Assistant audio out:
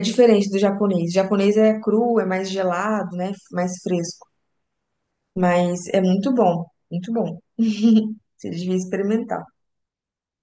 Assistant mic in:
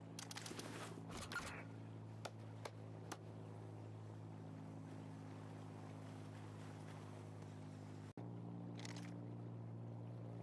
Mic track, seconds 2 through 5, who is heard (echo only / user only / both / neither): neither